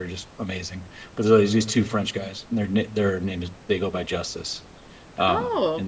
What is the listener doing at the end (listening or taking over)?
listening